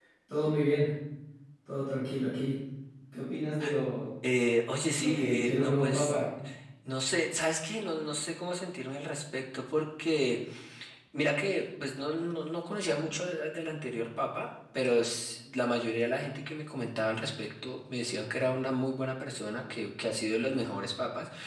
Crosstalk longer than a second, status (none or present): present